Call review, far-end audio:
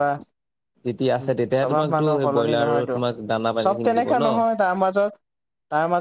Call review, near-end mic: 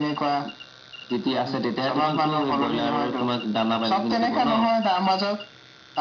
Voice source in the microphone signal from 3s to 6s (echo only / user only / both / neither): echo only